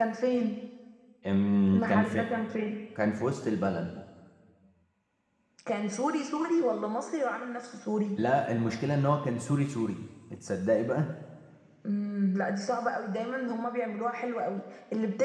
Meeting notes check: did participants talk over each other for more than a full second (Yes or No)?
No